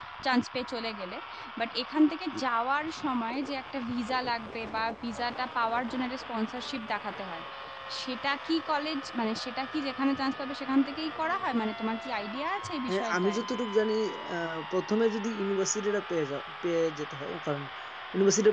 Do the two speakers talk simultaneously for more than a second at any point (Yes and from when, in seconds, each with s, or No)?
No